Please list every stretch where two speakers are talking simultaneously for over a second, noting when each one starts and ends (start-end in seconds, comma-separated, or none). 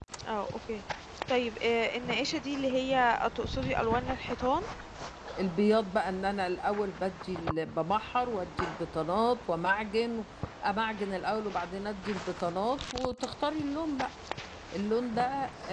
none